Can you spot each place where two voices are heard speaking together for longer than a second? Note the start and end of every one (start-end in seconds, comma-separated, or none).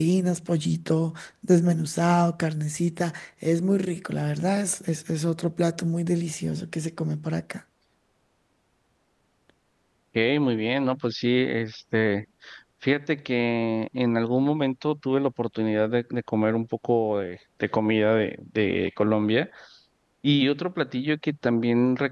none